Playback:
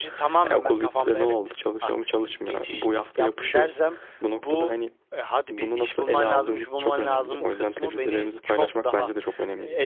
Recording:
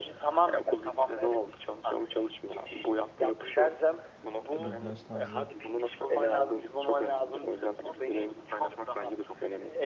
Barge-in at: 4.6 s

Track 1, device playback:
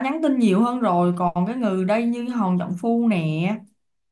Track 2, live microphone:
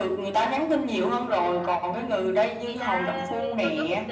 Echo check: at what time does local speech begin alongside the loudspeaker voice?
1.2 s

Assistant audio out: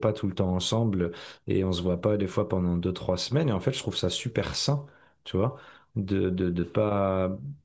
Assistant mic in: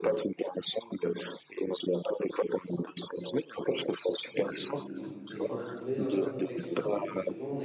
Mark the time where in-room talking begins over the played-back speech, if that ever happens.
4.2 s

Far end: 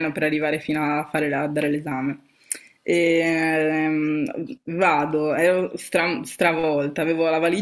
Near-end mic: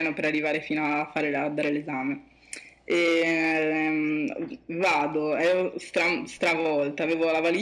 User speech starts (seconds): none

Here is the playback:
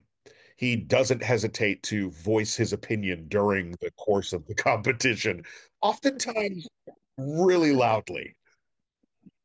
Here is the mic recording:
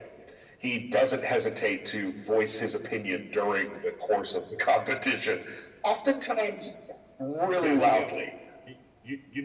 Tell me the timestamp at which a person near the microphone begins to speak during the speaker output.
7.6 s

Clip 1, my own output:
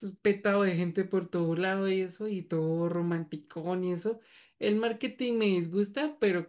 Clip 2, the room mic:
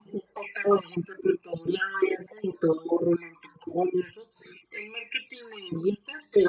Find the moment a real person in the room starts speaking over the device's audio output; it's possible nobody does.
none

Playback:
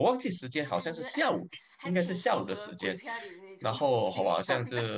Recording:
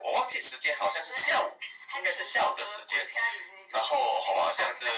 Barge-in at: none

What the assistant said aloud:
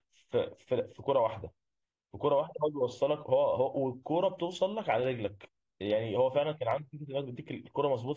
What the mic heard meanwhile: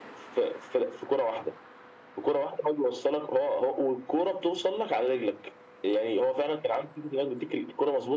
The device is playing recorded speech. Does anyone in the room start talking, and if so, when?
none

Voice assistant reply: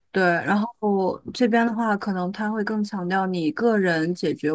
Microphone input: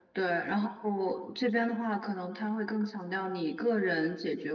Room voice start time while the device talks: none

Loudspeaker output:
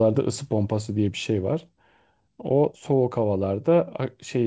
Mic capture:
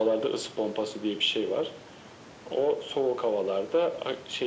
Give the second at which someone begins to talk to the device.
none

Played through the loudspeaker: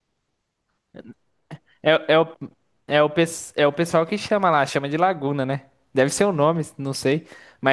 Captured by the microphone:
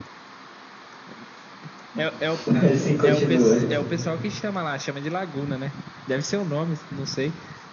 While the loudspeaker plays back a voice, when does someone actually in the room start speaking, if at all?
1.9 s

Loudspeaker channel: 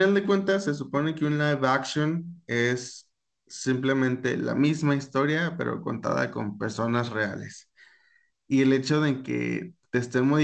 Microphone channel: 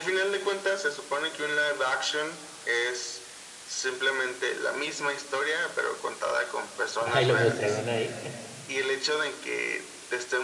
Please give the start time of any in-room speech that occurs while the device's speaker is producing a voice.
7.0 s

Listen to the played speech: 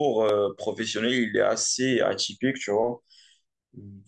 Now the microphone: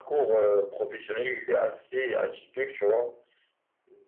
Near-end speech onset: none

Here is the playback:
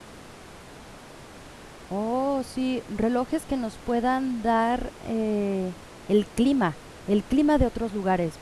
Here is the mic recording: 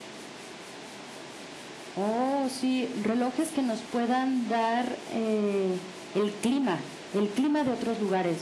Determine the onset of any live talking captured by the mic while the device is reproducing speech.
none

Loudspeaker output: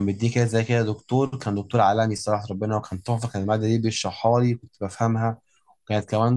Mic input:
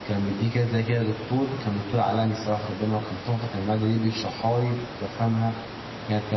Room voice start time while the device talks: none

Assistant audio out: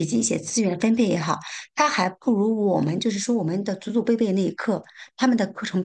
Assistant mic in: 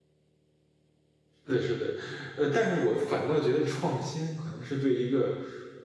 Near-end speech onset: 1.4 s

